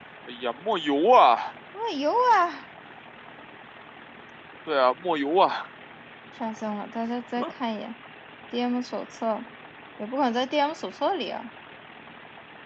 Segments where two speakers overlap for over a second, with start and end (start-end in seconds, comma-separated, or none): none